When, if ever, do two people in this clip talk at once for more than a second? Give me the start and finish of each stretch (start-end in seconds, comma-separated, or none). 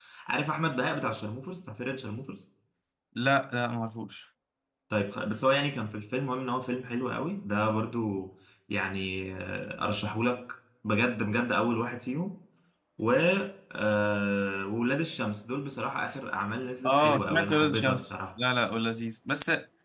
16.8-18.2